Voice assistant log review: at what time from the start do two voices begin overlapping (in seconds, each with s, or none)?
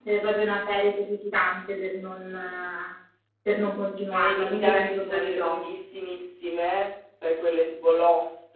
4.1 s